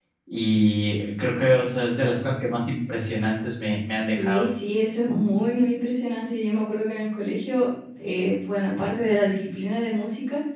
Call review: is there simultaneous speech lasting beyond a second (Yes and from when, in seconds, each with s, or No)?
No